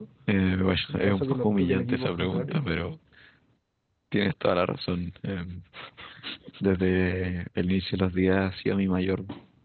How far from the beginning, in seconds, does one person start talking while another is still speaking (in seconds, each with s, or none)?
0.9 s